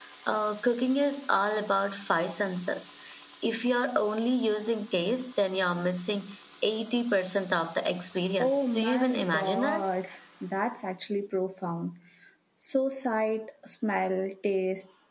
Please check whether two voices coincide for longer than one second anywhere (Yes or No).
Yes